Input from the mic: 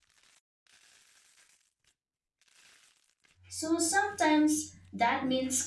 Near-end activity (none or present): present